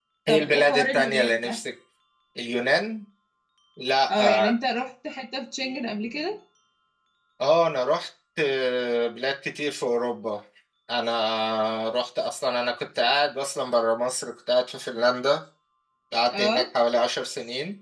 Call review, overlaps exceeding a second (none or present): present